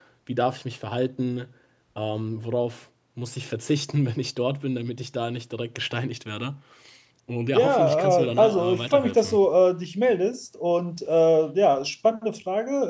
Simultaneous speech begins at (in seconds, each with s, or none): 7.5 s